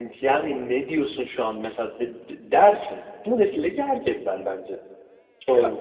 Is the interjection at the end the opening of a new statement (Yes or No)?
Yes